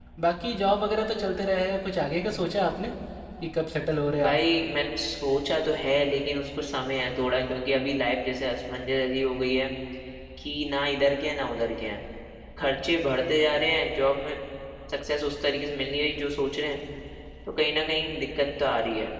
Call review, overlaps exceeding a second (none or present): none